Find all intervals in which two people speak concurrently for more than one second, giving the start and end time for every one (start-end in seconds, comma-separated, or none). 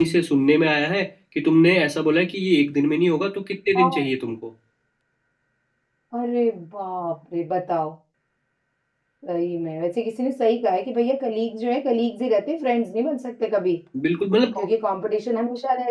none